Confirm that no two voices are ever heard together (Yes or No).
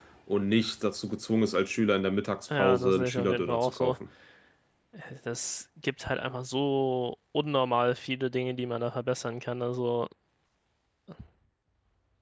No